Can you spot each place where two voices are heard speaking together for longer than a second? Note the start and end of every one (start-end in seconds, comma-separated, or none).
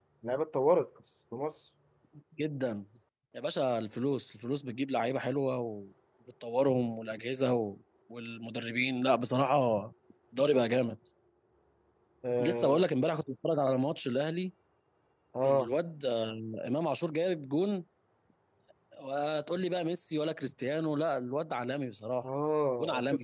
none